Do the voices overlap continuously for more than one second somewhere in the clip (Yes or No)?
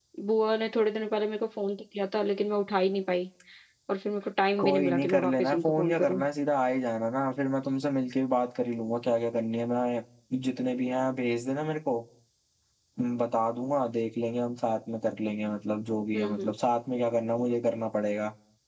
Yes